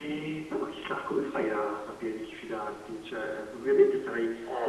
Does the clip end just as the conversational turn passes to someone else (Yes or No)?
No